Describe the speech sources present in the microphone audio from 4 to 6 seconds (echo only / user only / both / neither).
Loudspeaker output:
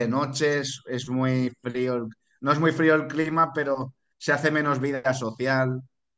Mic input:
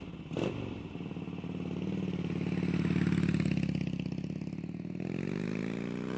neither